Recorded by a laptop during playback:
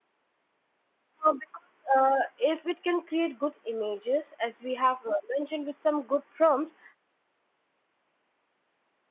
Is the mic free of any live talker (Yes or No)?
No